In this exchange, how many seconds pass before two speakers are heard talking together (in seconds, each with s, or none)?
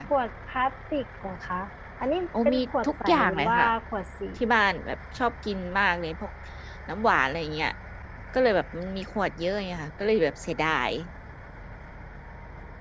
2.4 s